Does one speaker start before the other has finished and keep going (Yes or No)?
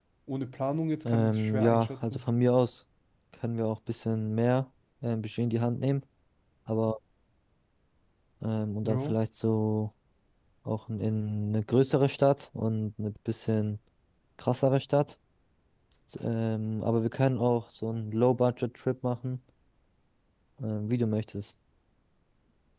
Yes